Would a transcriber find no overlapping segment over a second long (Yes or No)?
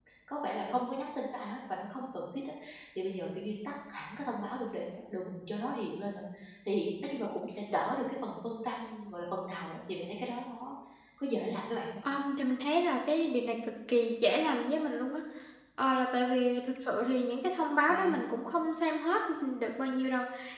Yes